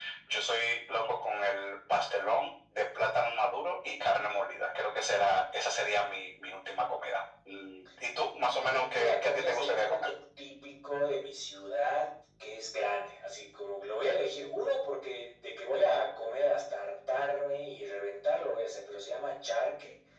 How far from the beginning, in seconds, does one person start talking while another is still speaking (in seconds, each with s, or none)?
8.5 s